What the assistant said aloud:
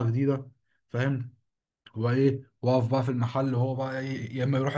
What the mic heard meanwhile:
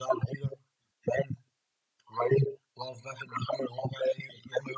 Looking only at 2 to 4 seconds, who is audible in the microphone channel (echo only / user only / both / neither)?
echo only